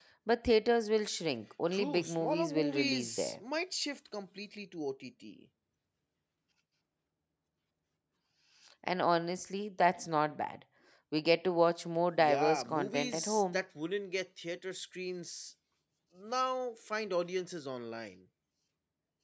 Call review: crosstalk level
present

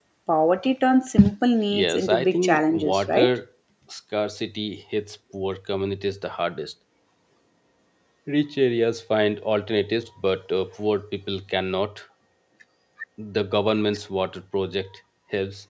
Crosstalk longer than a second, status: present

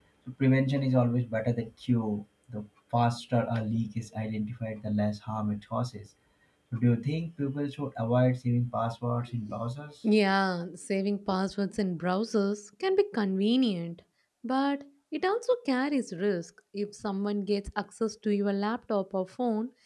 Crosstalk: none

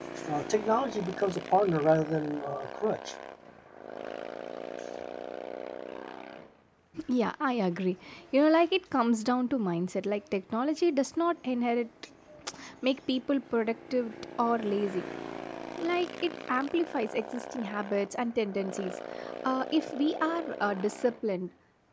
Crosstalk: none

